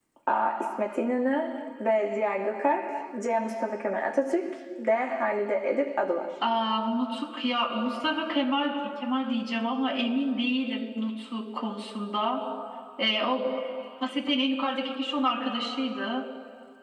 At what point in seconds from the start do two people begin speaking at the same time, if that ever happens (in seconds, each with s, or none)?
none